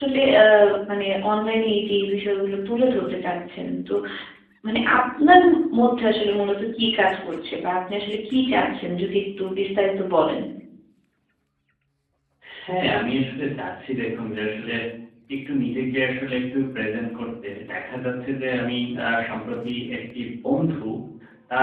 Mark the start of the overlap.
none

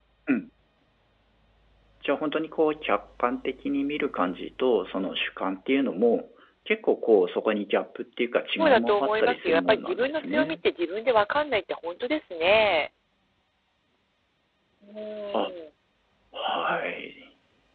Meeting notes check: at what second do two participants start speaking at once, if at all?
9 s

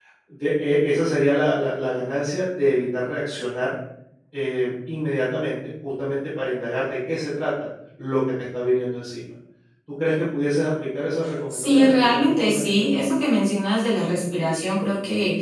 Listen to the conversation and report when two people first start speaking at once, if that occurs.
12 s

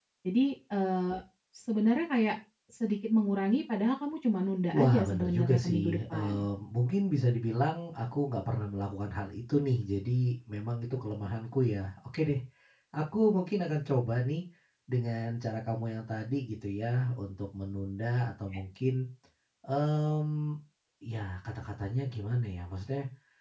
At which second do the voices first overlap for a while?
5 s

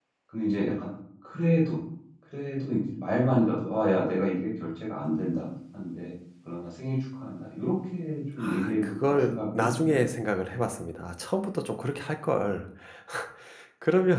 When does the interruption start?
8 s

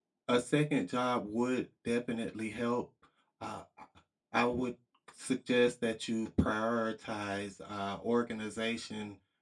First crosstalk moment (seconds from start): none

